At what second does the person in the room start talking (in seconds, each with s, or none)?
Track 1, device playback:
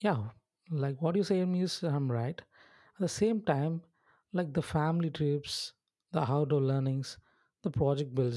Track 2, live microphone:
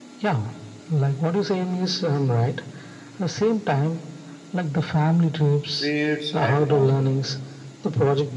5.8 s